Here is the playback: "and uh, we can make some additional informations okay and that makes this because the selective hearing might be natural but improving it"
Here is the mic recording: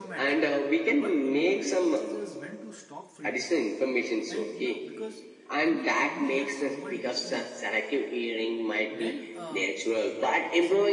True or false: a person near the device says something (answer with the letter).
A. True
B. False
A